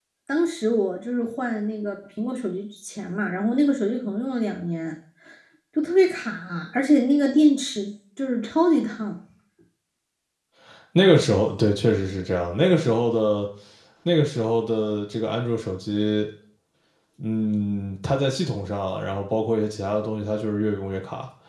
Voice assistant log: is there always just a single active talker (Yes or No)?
Yes